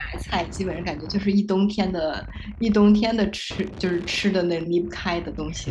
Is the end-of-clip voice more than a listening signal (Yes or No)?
Yes